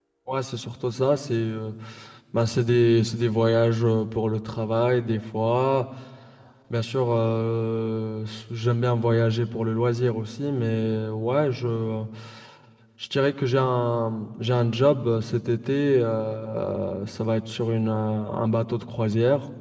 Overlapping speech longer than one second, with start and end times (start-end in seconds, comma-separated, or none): none